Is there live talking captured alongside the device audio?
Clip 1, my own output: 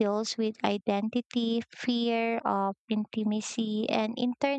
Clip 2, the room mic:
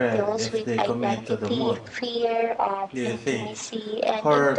Yes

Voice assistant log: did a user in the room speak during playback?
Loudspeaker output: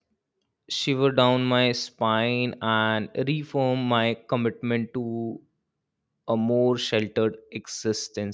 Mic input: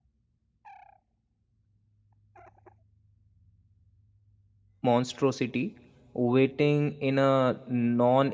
Yes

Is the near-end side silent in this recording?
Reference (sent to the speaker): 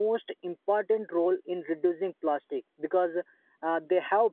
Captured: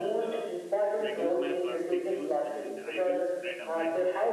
No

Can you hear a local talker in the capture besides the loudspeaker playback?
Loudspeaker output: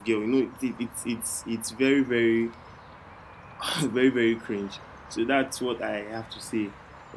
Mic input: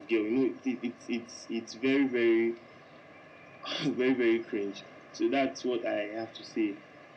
No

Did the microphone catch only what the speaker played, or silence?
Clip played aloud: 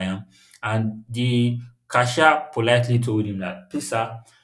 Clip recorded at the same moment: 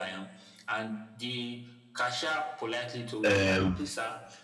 No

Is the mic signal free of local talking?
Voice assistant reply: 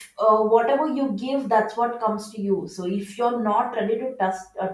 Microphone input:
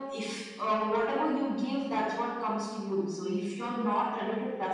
Yes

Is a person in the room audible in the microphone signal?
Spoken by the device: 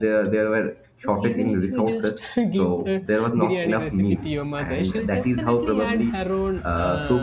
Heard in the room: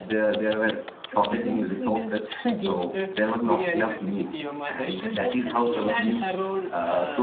No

